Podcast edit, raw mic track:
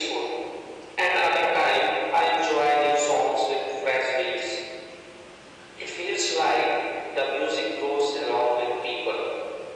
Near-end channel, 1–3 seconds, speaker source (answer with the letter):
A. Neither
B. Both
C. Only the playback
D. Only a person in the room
C